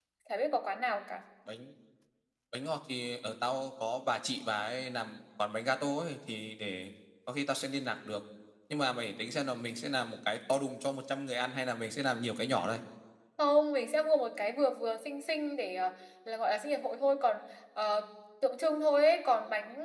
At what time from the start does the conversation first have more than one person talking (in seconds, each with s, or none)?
none